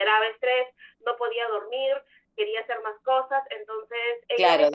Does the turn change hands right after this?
Yes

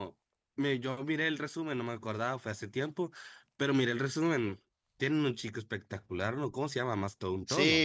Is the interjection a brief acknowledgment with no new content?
No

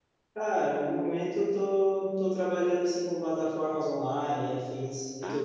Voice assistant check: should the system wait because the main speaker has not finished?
No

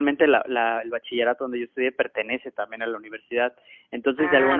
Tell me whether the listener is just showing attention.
Yes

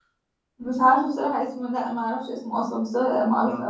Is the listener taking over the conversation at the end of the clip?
Yes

